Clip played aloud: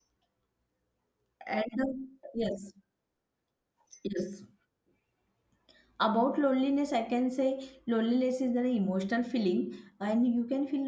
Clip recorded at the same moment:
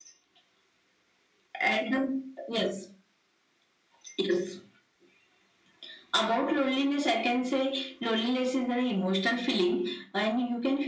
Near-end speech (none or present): none